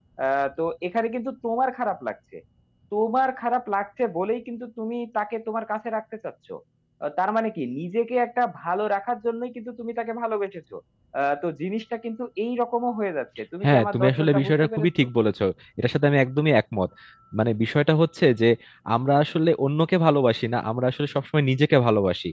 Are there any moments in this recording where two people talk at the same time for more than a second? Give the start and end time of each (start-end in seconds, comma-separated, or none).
13.6-14.9